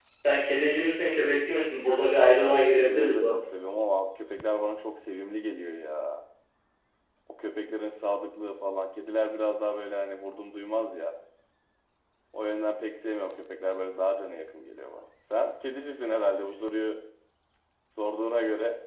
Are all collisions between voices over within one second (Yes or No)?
No